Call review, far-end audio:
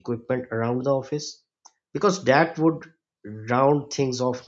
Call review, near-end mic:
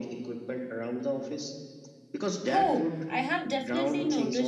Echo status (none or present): present